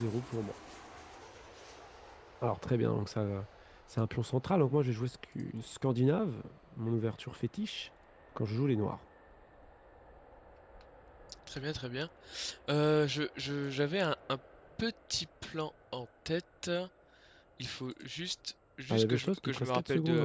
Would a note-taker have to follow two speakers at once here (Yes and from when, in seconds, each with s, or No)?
Yes, from 18.9 s